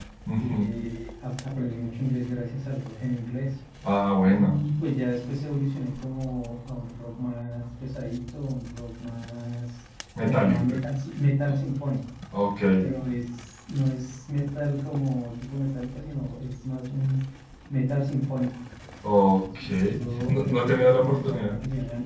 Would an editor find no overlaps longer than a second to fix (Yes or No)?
No